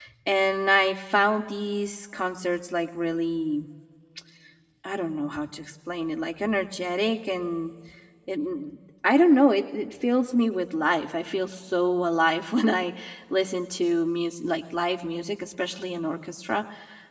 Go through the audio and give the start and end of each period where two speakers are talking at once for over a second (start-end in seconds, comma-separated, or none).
none